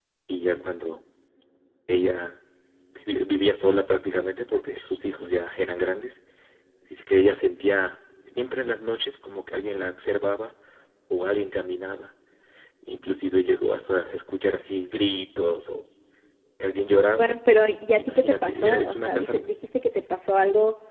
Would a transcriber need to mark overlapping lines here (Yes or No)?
Yes